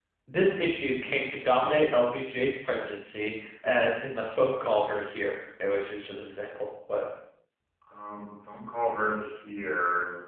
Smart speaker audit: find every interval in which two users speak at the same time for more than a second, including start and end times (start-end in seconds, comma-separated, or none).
none